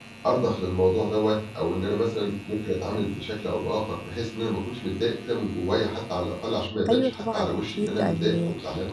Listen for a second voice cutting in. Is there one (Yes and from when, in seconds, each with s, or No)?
Yes, from 6.9 s